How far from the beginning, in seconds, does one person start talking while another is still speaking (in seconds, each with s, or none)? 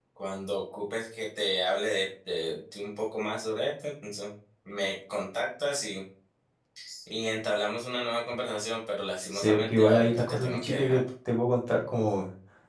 9.3 s